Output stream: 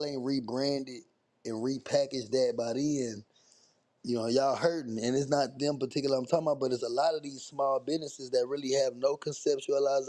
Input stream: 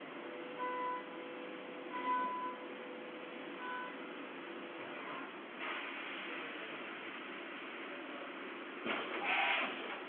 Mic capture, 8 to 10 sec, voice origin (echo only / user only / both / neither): neither